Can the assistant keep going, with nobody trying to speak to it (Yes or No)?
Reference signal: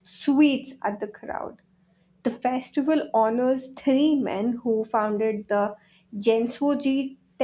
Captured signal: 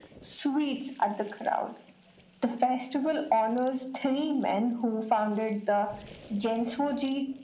Yes